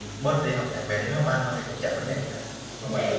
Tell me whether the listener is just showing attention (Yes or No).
No